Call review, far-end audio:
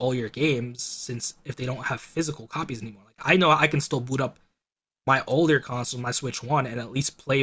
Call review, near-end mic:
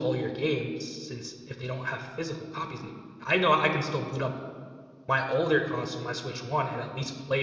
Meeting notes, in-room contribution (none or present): none